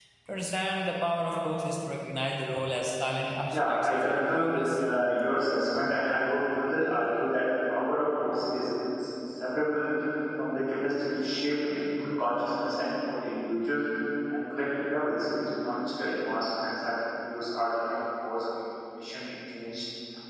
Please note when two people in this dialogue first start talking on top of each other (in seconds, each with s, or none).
3.5 s